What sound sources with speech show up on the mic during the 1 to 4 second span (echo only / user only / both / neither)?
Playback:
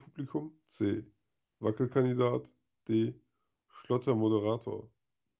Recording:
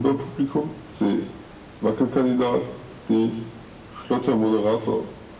echo only